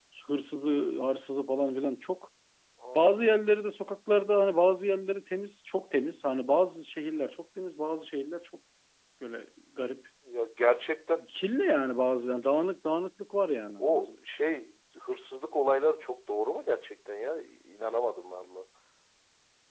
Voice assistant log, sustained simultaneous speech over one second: none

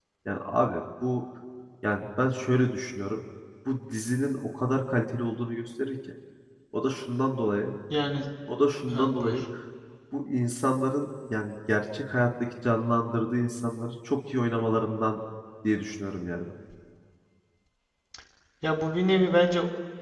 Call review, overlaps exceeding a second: none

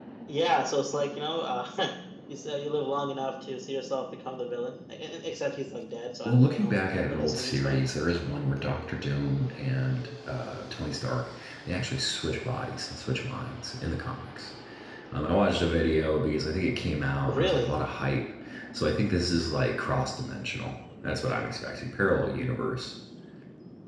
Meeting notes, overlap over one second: present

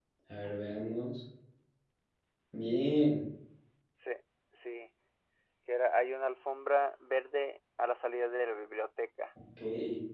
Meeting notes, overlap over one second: none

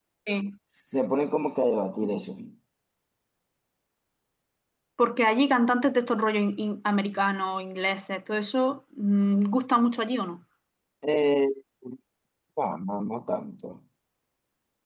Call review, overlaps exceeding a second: none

